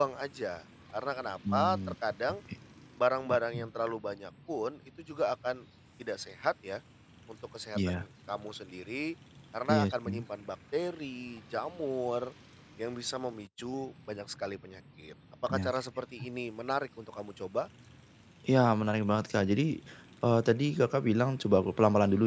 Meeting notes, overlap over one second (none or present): none